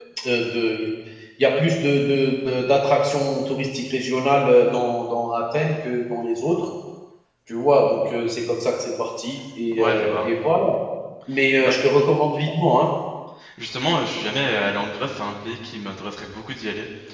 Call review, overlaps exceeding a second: none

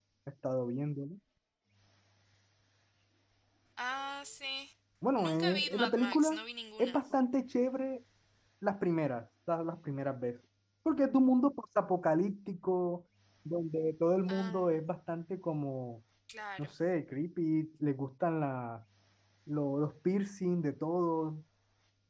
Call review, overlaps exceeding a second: present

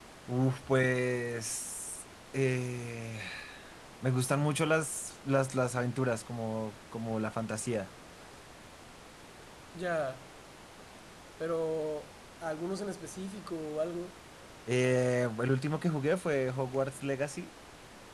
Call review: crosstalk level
none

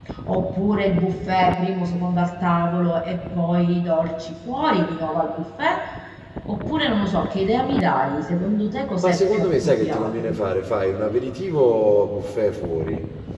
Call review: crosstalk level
present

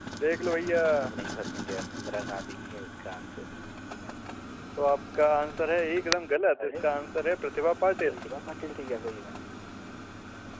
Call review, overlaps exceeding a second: none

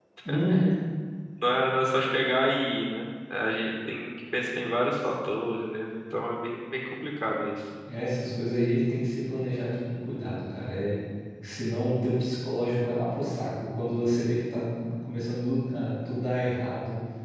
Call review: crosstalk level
none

